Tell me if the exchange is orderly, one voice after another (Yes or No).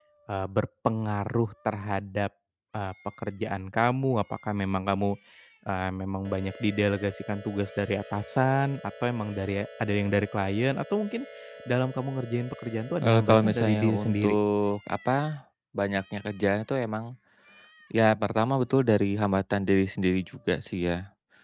No